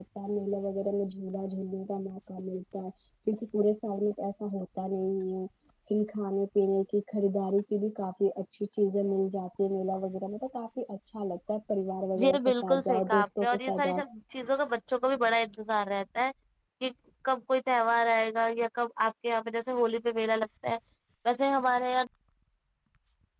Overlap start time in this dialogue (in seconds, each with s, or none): 12.2 s